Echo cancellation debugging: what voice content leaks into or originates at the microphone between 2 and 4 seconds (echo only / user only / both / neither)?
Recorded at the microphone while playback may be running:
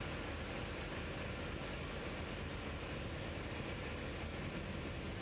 neither